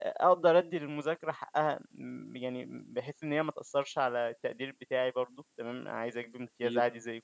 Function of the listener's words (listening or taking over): listening